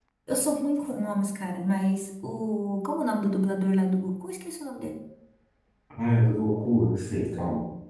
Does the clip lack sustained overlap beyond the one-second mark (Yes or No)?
Yes